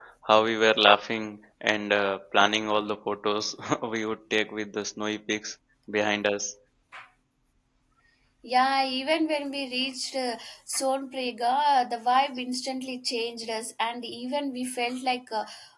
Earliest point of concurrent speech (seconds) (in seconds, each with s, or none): none